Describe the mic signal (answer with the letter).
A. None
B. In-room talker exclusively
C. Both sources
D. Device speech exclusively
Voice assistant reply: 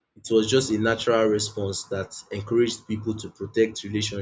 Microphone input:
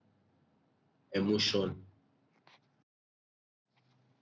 B